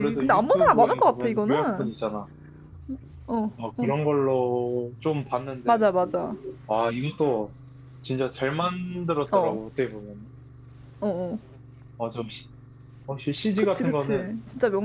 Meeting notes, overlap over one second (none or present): present